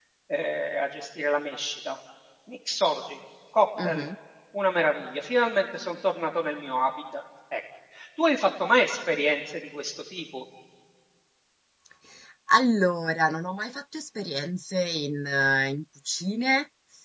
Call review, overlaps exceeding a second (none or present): none